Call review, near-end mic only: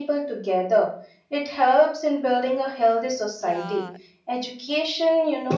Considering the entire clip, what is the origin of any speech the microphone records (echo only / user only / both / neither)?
both